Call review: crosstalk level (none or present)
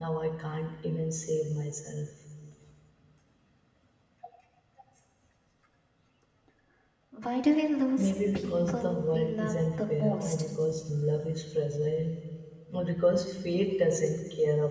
present